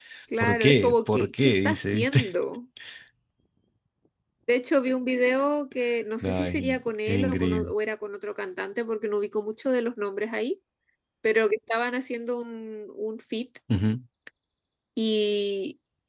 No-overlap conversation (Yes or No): No